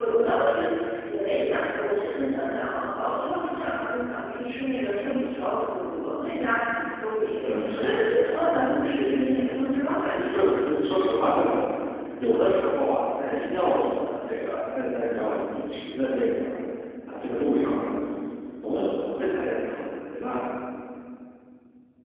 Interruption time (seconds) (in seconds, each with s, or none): 7.4 s